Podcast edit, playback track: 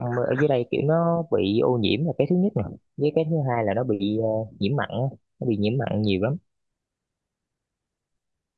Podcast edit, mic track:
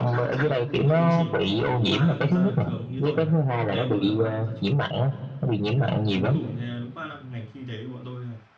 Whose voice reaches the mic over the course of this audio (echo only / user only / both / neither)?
both